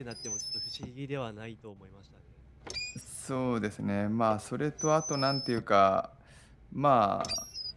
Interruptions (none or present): none